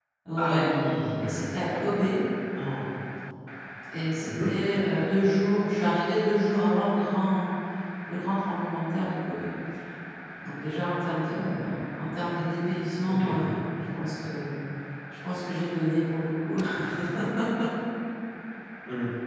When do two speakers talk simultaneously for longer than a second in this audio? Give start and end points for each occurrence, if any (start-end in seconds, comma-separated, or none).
none